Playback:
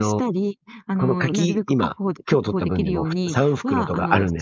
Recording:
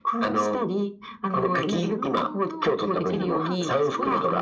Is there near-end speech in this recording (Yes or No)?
Yes